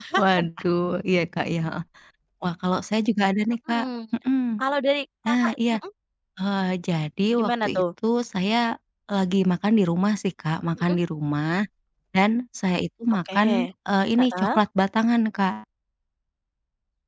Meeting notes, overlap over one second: none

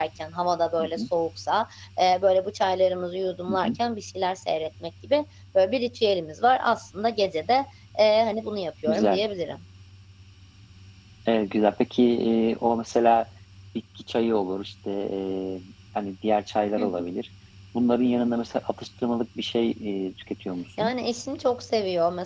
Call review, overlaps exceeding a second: none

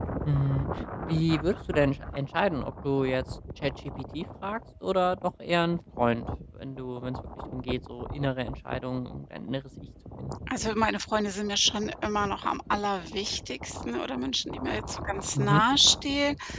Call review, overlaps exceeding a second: none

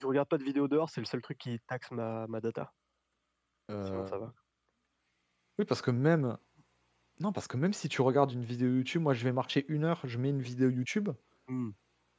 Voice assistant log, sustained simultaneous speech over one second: none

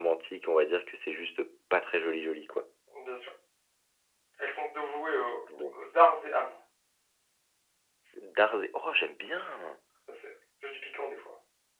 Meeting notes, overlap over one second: none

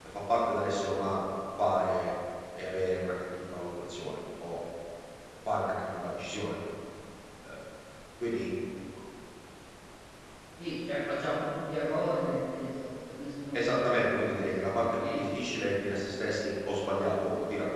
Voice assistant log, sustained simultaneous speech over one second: present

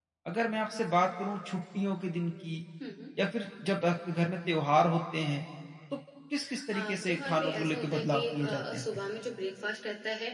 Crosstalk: present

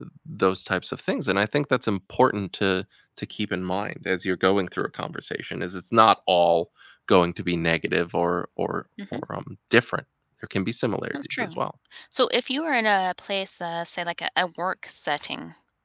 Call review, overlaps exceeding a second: none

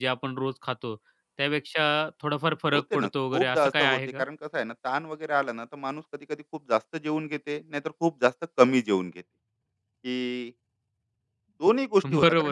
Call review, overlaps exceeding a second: present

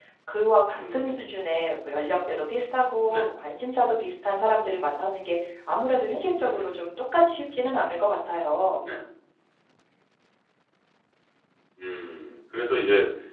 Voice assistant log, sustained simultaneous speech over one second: none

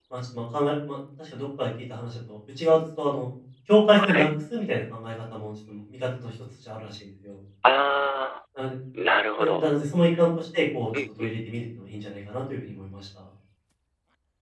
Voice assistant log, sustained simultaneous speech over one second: none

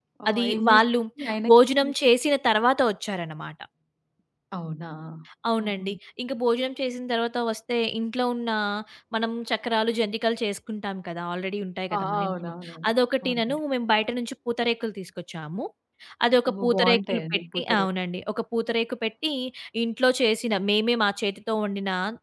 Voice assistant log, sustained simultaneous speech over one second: present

